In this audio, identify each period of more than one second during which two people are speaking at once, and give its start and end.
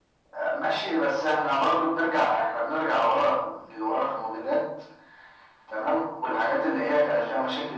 none

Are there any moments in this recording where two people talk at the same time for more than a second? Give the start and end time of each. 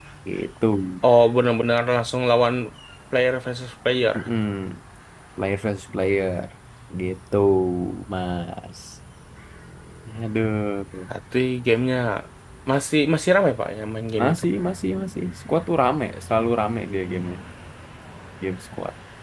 none

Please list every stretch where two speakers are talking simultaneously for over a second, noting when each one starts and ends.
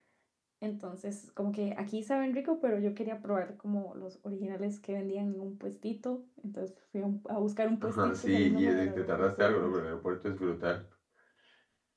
7.8-9.8

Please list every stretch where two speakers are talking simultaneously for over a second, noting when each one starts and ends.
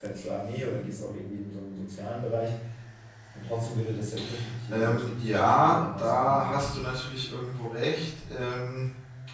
4.7-6.7

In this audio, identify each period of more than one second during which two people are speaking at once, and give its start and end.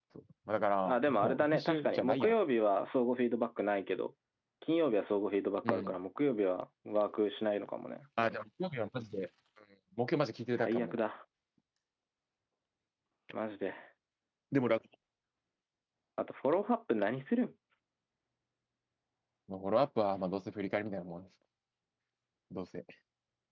0.8-2.3

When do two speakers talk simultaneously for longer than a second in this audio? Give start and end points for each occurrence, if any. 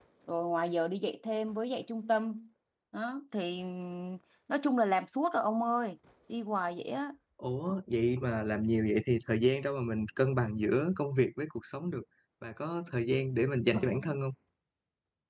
none

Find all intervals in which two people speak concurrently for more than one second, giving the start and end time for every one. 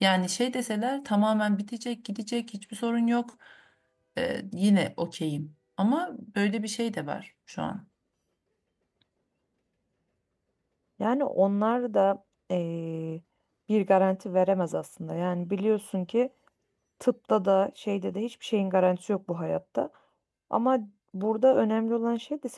none

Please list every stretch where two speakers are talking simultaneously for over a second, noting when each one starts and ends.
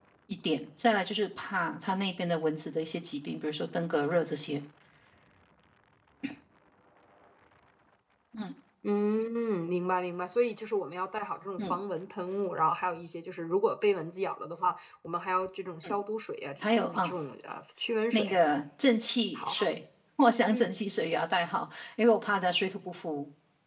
none

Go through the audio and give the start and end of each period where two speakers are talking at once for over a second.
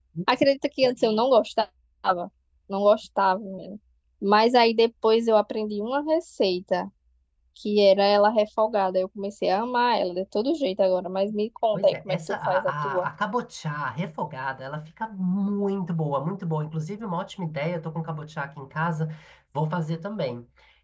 11.7-13.1

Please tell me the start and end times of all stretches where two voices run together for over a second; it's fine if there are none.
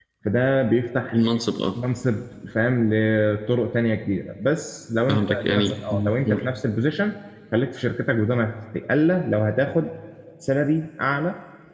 5.1-6.5

